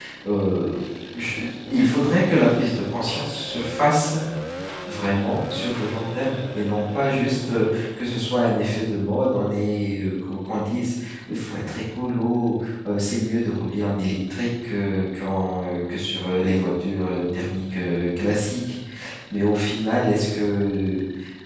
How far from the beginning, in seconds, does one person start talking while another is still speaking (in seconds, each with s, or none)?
none